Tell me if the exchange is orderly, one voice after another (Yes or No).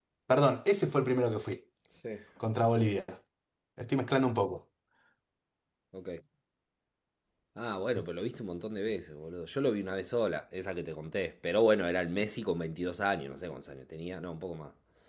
Yes